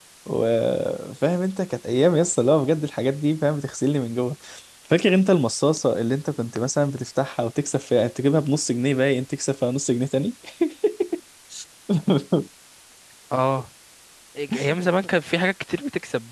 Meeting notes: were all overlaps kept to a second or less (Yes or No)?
Yes